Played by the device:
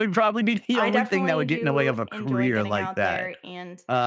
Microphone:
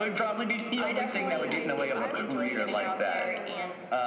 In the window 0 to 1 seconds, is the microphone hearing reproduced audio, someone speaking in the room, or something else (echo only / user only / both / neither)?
echo only